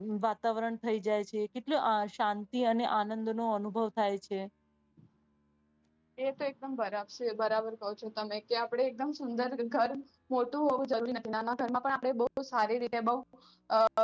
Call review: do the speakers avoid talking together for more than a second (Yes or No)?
Yes